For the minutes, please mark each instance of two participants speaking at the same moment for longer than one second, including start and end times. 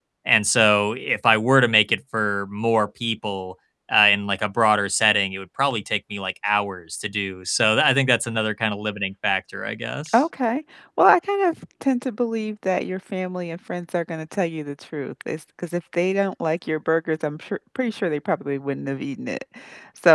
none

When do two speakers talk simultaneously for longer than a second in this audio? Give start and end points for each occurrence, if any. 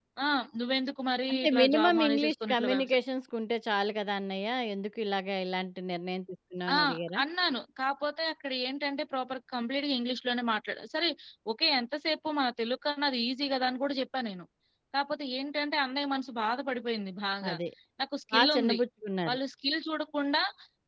1.3-3.0

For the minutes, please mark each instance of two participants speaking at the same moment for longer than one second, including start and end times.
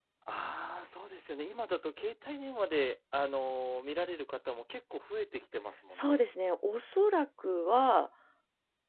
none

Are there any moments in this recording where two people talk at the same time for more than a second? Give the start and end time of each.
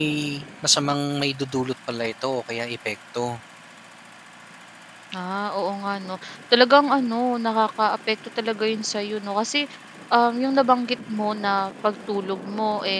none

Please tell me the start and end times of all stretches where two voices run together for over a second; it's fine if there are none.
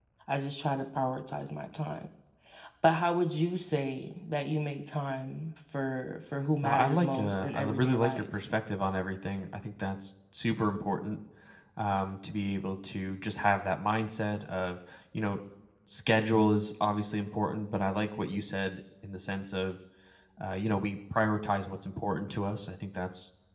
6.6-8.2

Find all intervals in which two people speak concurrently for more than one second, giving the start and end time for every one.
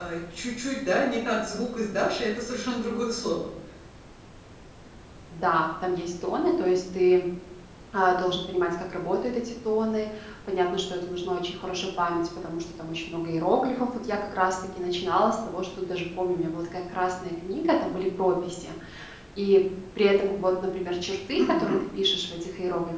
none

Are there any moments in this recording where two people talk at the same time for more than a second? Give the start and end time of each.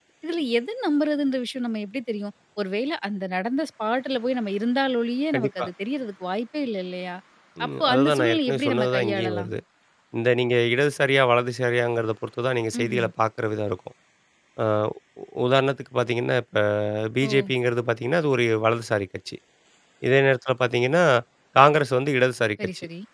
7.7-9.5

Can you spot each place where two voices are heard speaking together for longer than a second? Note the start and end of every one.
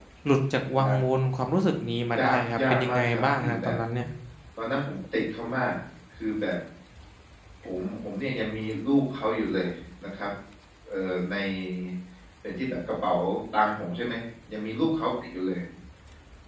2.2-3.8

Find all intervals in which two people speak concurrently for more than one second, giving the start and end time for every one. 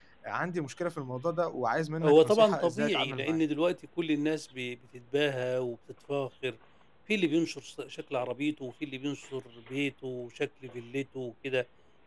2.0-3.4

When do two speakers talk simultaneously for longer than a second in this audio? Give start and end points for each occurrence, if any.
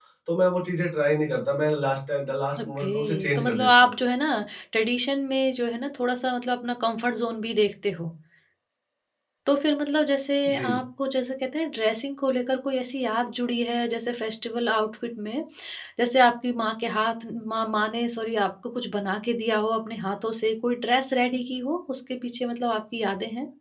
2.6-3.9

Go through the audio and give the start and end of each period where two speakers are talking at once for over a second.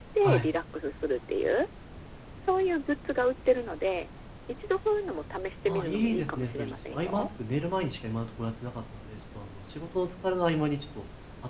5.7-7.2

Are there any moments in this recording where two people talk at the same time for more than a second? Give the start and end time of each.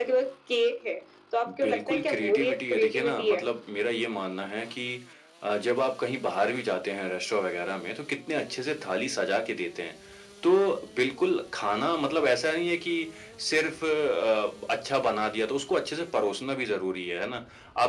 1.6-3.4

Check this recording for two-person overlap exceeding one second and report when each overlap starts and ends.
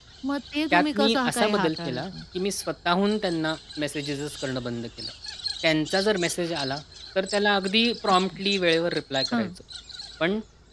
0.7-2.0

